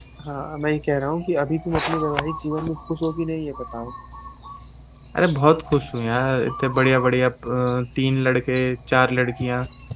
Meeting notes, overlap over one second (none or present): none